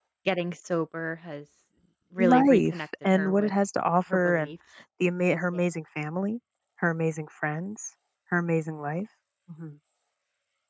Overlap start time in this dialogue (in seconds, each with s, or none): 2.2 s